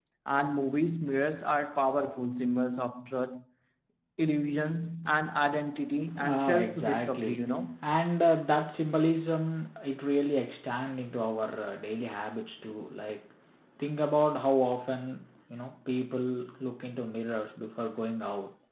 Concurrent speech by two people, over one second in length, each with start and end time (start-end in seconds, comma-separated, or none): 6.2-7.4